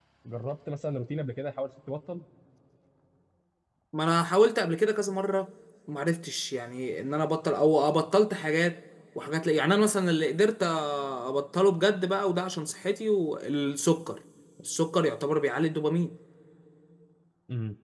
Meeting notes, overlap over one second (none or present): none